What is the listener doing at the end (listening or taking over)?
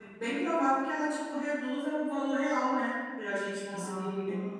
listening